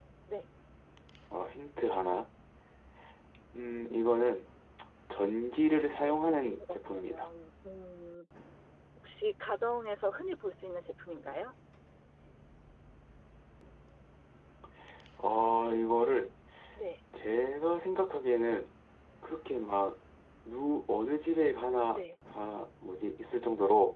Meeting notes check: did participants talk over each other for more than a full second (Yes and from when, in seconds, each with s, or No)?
Yes, from 5.7 s